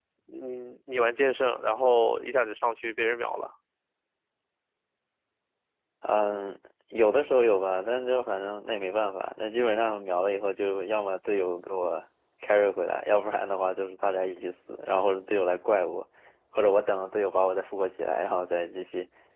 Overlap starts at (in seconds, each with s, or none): none